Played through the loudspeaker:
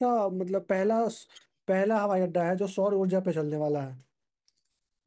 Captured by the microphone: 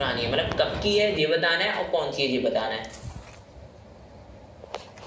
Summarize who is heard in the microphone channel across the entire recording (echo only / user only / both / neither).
user only